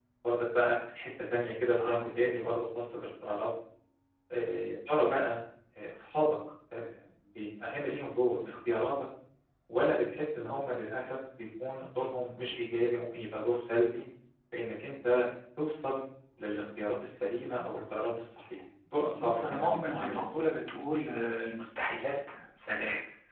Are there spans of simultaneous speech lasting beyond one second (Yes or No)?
Yes